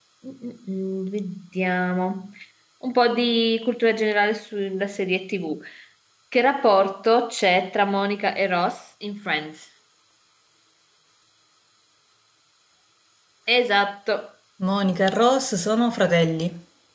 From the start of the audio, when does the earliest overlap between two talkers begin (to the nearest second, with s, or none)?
none